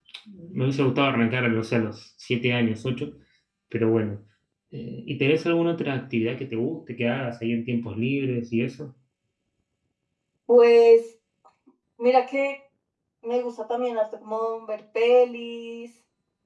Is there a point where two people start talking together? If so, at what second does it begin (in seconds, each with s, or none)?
none